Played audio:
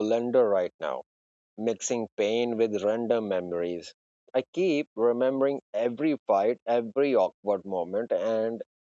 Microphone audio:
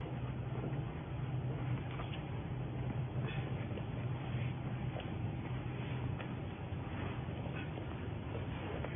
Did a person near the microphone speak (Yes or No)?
No